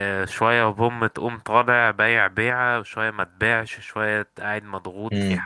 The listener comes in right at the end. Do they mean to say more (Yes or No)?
No